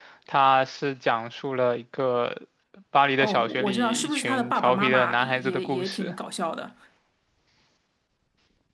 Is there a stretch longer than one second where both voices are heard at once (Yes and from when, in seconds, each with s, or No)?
Yes, from 3.2 s